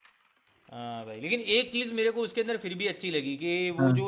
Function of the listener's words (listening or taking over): listening